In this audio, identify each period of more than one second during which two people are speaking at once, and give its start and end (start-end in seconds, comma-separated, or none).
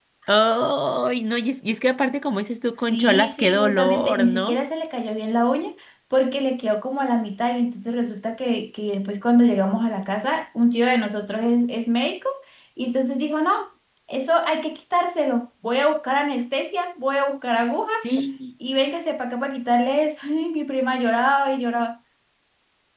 2.9-4.6